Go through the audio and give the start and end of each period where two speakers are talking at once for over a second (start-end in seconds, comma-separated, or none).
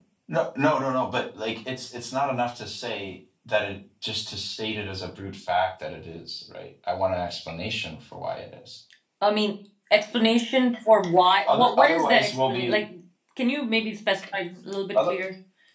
11.5-12.8